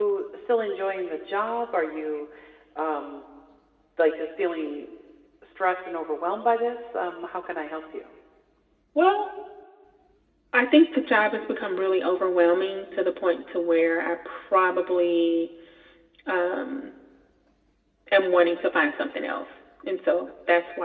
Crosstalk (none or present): none